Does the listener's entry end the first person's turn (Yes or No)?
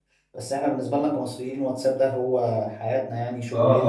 Yes